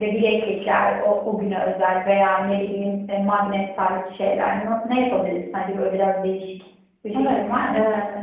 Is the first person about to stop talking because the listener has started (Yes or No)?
Yes